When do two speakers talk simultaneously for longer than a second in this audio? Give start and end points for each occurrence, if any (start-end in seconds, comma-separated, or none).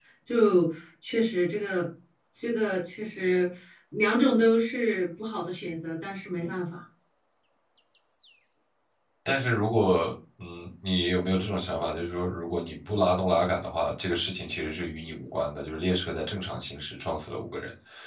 none